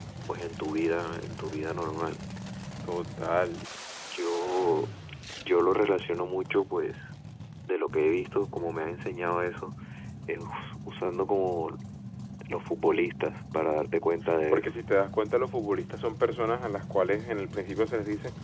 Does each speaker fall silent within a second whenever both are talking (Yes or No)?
Yes